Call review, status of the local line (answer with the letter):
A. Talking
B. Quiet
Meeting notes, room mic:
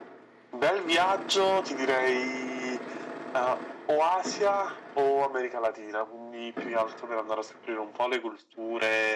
B